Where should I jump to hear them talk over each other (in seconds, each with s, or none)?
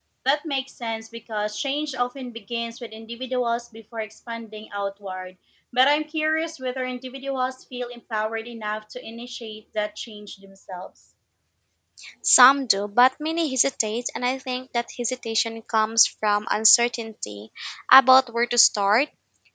none